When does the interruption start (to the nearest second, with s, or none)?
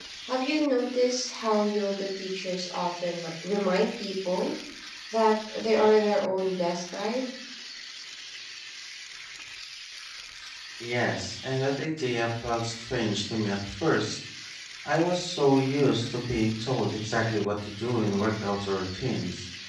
none